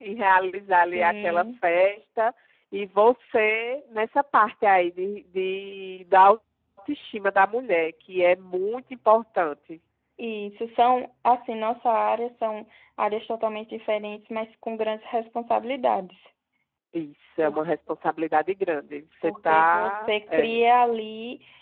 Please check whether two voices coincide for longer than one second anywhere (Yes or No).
Yes